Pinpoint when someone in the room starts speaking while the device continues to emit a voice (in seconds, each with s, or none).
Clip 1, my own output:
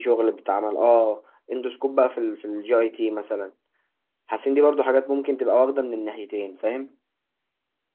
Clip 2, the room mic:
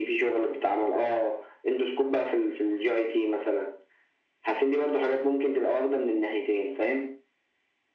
none